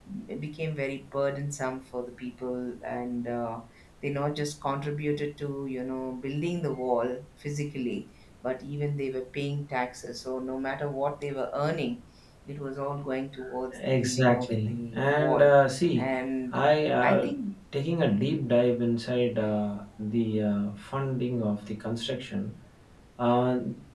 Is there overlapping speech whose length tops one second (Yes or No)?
Yes